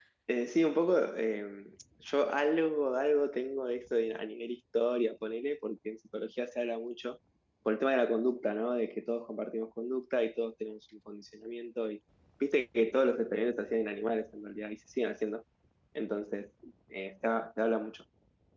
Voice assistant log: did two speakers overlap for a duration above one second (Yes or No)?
No